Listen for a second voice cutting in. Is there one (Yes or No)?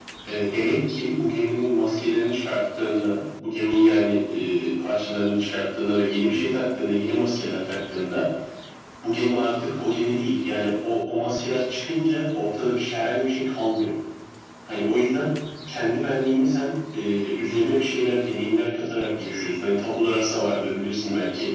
No